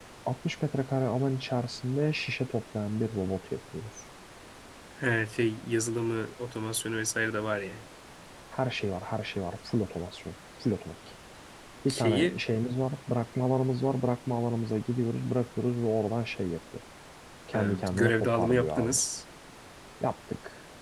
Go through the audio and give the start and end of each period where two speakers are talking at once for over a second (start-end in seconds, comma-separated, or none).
17.5-19.0